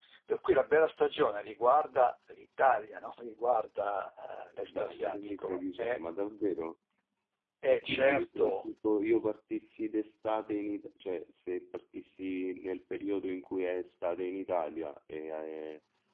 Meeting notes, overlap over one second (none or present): present